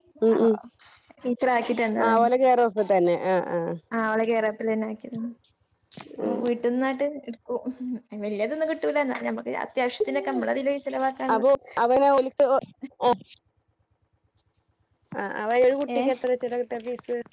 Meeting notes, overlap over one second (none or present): none